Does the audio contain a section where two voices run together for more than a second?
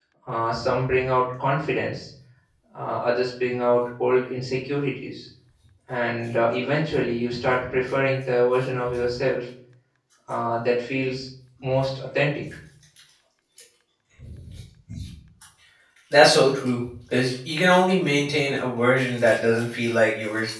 No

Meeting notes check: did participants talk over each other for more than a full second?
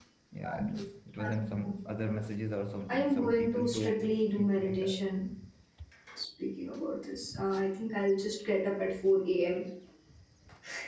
Yes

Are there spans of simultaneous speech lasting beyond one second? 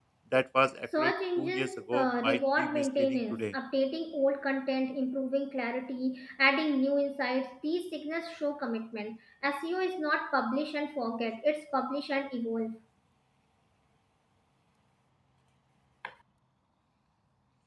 Yes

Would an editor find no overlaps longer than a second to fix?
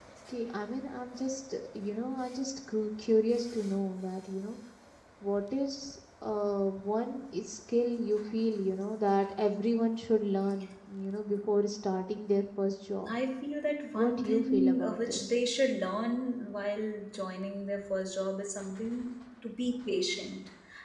No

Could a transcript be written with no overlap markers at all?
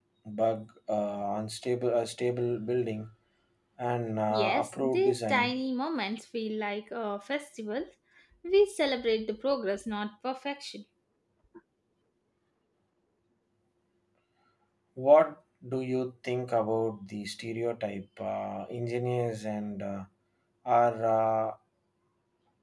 No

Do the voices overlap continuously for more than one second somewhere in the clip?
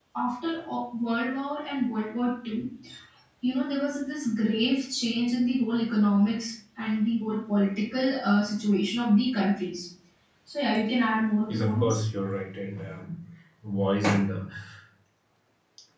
No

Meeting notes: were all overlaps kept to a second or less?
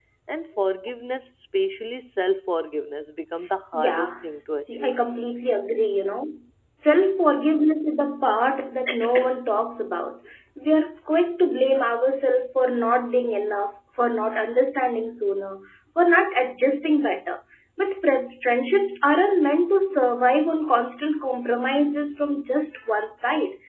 No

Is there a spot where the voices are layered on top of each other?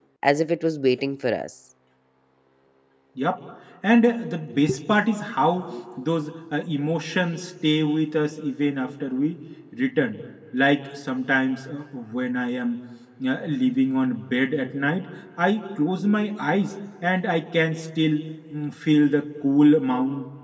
No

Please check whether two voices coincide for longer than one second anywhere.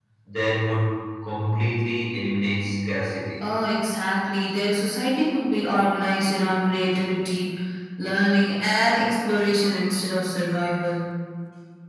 No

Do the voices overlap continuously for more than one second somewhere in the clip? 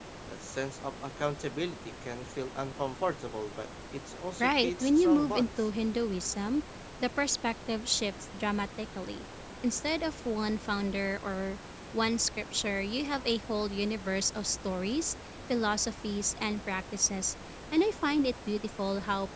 Yes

